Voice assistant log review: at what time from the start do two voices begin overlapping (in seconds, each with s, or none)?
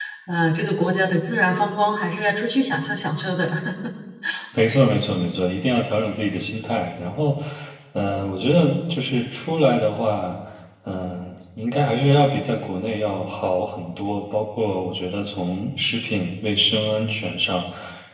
none